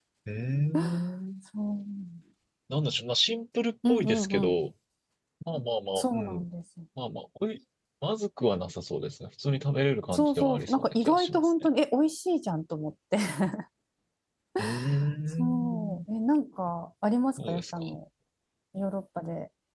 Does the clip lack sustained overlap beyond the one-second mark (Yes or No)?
No